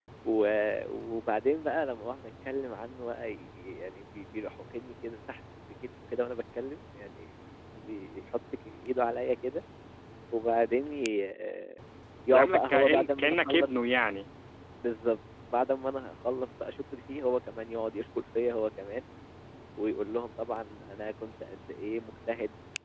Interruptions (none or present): present